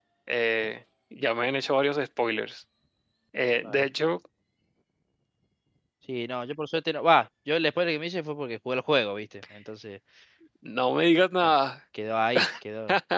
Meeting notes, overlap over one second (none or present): none